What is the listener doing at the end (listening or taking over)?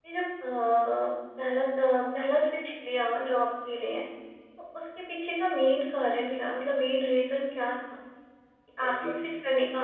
listening